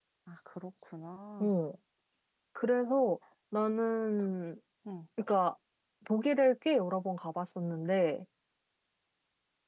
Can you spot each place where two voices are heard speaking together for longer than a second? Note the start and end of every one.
none

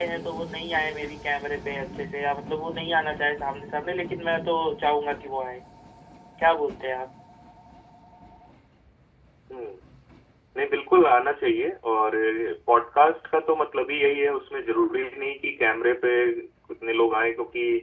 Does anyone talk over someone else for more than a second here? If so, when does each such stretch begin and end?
none

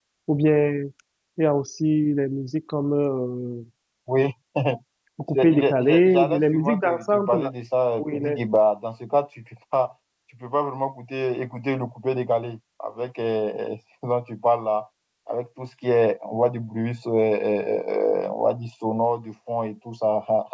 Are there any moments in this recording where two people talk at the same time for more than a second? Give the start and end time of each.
5.3-7.5

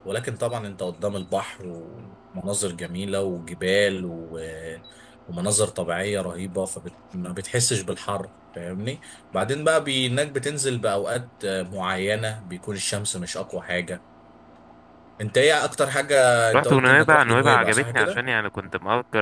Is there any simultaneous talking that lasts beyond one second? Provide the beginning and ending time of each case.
16.5-18.2

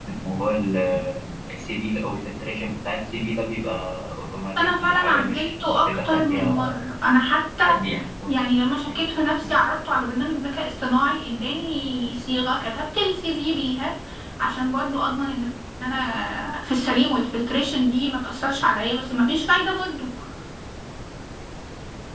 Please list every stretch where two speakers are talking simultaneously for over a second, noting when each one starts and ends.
4.5-6.8

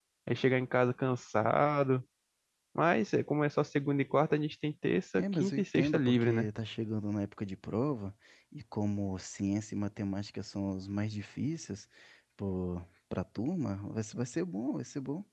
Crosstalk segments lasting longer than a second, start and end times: 5.2-6.5

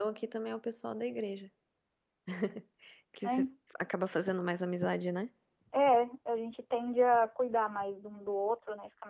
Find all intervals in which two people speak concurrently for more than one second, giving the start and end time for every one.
none

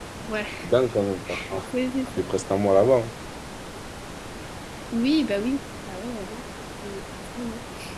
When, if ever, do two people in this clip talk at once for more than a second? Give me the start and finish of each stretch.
none

